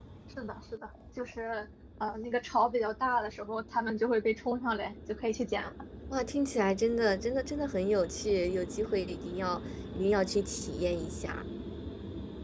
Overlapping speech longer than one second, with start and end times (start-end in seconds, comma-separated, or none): none